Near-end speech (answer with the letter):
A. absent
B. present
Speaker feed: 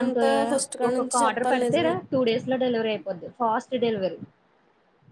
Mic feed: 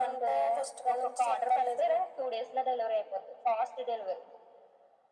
A